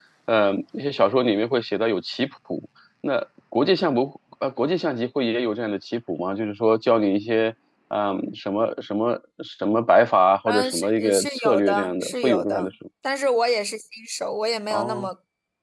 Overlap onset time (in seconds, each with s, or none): 10.5 s